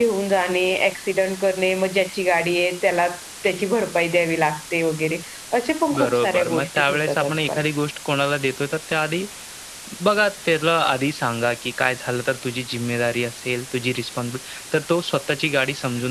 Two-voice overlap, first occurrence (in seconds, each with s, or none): 6.0 s